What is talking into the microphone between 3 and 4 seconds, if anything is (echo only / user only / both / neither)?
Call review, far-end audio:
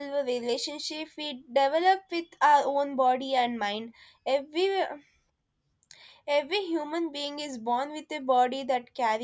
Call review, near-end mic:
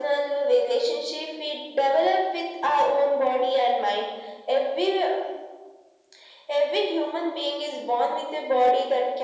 echo only